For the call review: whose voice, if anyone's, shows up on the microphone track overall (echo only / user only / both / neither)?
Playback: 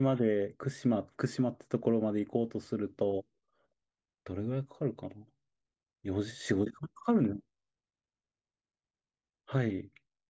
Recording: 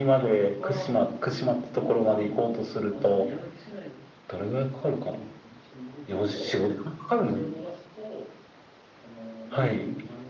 both